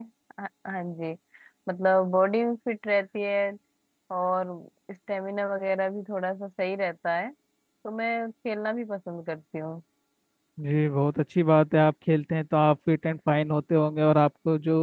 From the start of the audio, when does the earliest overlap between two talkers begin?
none

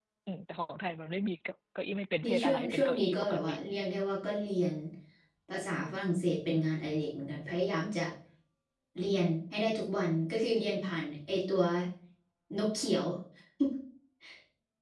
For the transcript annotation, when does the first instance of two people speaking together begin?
2.2 s

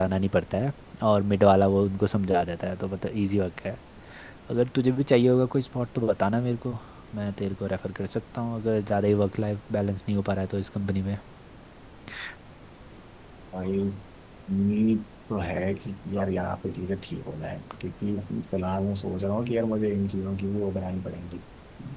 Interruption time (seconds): none

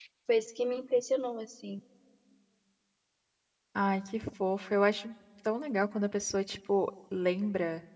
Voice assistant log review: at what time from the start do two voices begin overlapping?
none

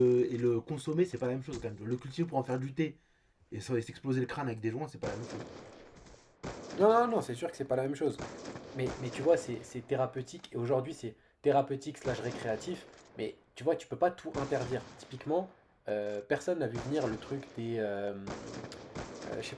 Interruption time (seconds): none

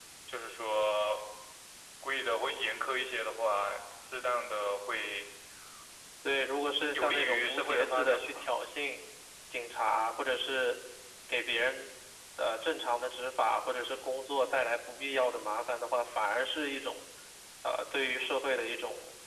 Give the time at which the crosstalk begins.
6.9 s

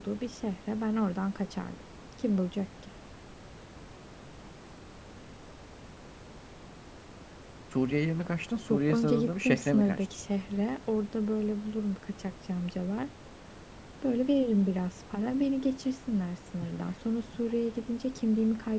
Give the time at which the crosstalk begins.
8.7 s

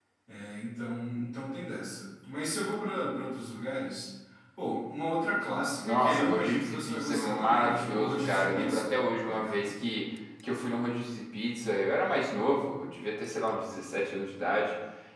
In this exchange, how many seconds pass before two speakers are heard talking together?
5.8 s

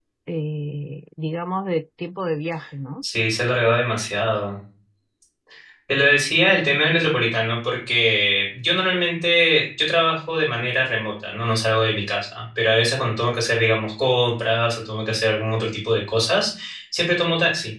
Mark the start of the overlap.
none

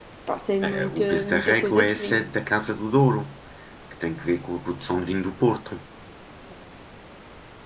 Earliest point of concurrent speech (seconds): 0.7 s

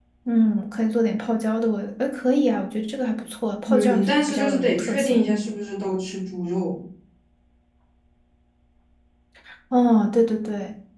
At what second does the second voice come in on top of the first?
3.7 s

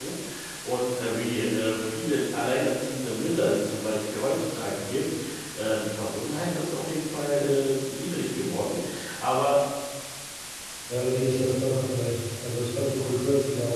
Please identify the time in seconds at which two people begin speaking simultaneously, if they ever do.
none

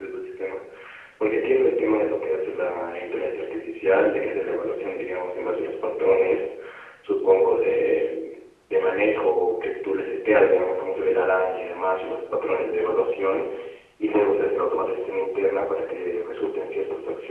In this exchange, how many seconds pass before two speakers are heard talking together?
none

